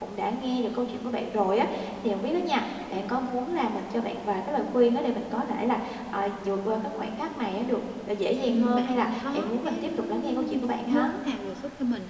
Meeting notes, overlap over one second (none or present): present